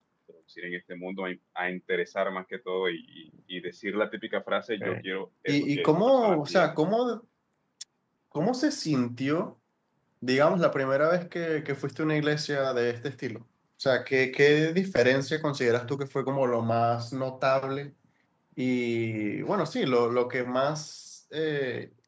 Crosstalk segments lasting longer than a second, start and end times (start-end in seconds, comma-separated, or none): 5.5-6.8